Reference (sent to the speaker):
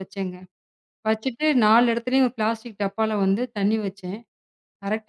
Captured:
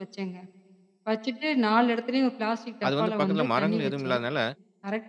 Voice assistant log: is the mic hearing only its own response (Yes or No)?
No